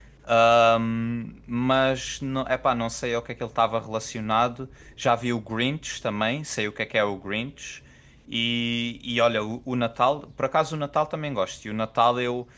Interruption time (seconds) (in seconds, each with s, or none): none